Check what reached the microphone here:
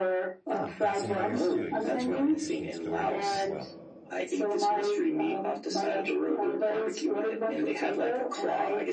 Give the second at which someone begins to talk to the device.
0.5 s

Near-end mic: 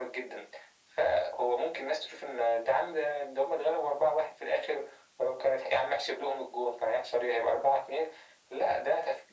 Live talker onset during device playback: none

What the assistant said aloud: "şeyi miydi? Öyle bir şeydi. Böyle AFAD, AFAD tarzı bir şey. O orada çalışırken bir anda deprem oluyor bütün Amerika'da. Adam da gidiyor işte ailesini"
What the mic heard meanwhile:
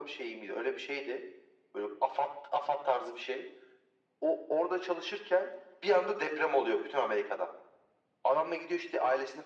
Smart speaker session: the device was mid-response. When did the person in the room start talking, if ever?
none

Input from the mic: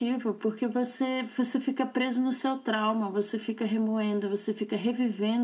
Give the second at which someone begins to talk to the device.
none

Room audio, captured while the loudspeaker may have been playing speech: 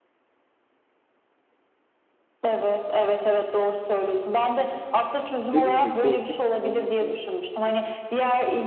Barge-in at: 5.4 s

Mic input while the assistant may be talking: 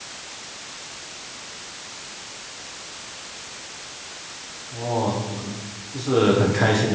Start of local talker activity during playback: 4.7 s

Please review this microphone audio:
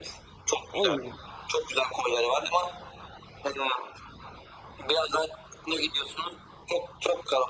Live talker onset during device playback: 0.7 s

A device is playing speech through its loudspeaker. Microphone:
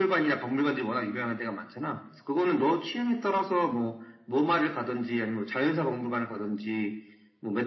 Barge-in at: none

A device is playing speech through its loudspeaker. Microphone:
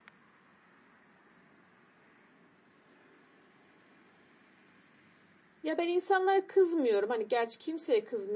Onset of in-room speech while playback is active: 5.6 s

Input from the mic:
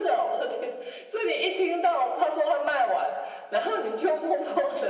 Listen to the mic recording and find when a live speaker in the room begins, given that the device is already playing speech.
none

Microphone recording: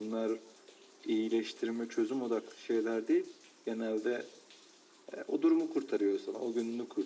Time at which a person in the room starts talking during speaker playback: none

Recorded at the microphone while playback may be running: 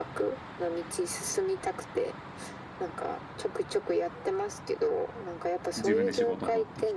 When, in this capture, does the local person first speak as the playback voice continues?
5.7 s

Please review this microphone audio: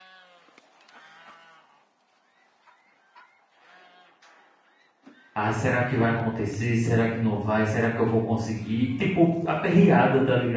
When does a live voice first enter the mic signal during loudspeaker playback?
5.3 s

